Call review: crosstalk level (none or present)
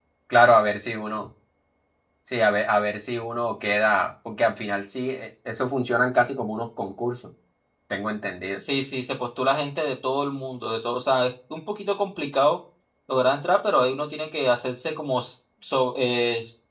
none